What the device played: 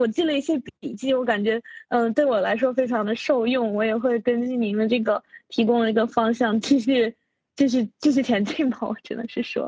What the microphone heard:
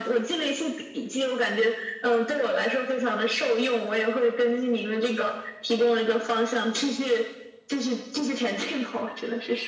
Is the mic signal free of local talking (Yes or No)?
Yes